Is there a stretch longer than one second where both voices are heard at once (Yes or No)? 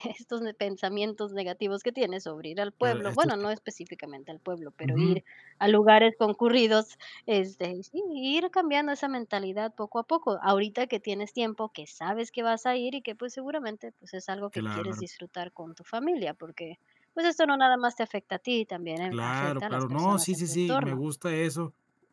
Yes